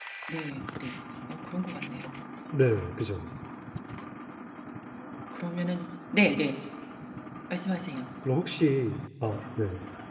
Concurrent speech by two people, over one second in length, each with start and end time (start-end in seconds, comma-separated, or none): none